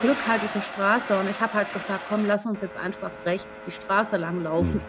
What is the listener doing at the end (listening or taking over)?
taking over